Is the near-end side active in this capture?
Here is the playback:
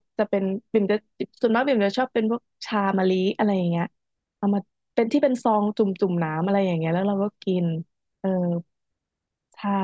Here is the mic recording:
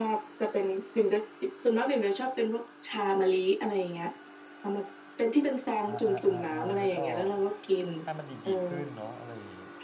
Yes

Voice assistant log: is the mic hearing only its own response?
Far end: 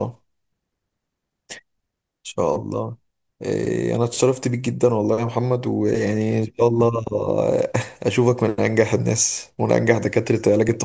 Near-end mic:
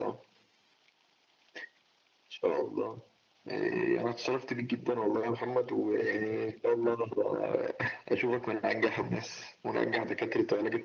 Yes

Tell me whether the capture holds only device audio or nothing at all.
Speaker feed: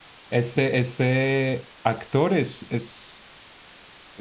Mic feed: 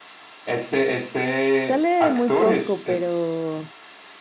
No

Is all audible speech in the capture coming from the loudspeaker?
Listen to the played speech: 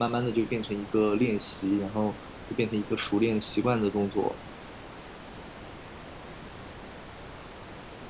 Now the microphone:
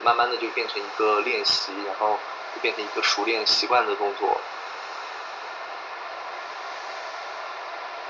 Yes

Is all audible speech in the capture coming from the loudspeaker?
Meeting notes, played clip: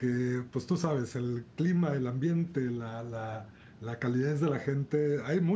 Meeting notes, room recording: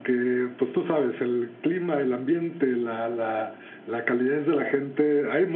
Yes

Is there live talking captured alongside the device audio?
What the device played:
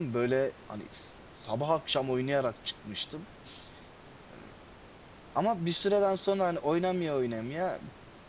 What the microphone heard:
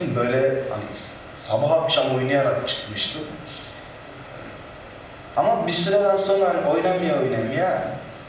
No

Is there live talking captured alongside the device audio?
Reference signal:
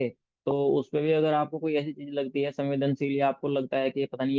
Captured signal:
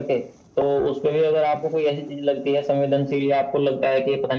No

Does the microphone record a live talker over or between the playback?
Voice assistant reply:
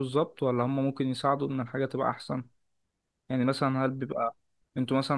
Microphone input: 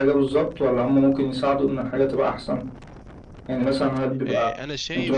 Yes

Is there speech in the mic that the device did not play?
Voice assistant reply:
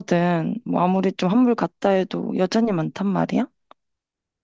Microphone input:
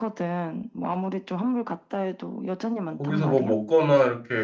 Yes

